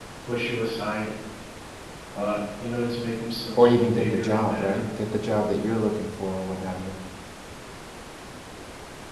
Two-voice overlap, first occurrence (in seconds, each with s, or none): 3.6 s